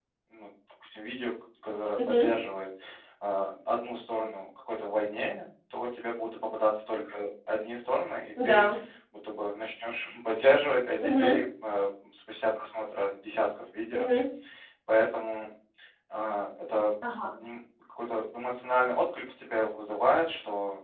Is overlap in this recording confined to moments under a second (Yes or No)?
Yes